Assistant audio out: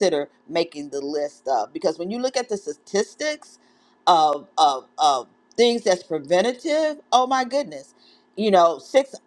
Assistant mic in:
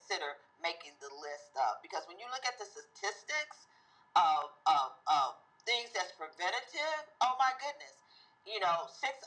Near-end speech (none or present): none